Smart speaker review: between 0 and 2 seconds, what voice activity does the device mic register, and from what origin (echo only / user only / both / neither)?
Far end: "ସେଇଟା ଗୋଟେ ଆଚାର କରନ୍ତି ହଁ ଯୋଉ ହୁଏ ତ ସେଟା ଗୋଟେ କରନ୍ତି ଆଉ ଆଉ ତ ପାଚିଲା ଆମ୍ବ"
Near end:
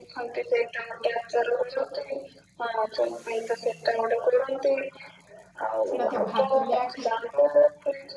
echo only